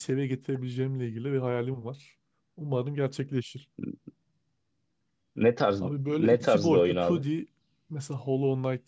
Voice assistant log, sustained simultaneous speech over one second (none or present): present